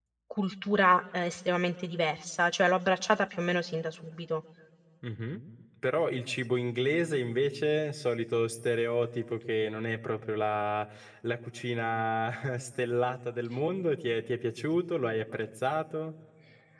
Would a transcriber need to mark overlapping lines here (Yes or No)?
No